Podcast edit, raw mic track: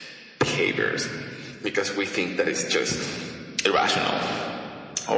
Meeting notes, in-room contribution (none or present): none